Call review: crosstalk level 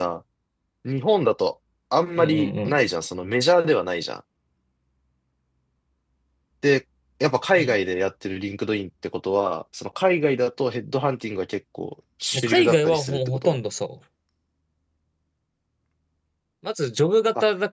present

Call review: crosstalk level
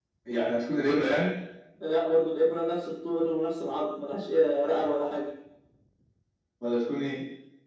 none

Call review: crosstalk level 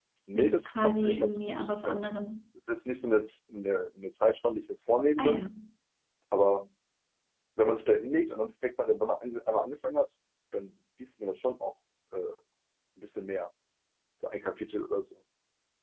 present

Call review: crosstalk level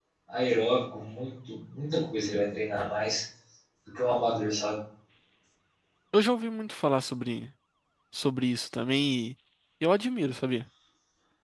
none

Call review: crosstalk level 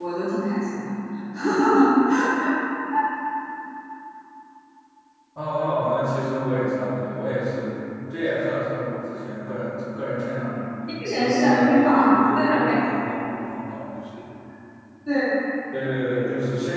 present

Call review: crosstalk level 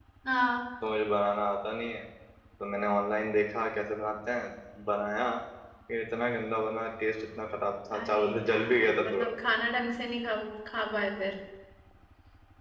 present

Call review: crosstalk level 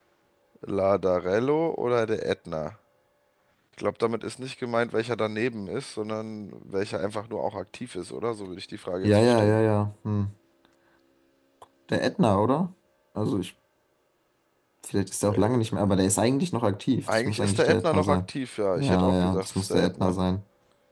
present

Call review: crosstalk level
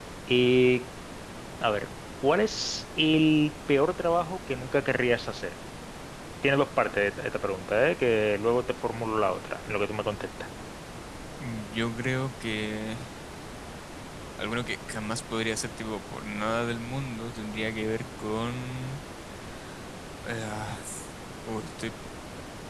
none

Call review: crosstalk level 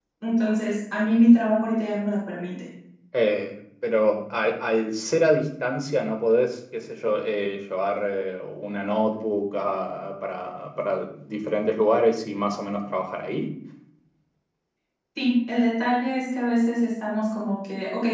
none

